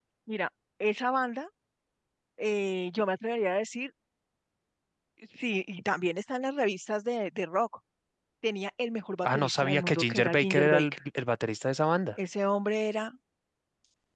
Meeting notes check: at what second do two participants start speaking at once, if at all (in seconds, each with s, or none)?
9.2 s